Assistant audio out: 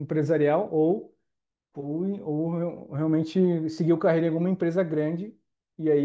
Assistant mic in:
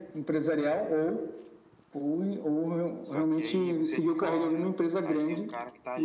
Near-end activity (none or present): present